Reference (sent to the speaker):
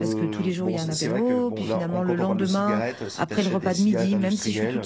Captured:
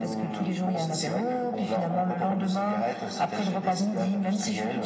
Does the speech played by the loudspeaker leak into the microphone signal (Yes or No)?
Yes